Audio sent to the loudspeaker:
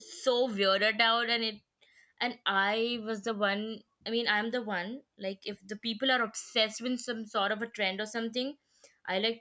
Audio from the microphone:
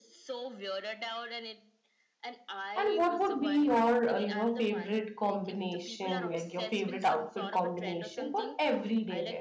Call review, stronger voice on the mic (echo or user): user